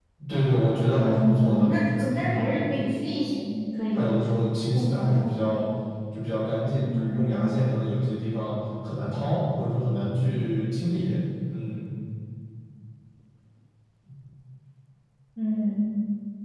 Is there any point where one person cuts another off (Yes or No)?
Yes